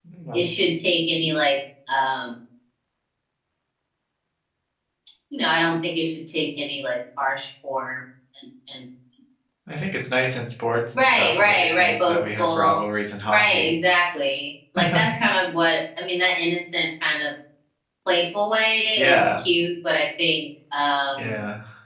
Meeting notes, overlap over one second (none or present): present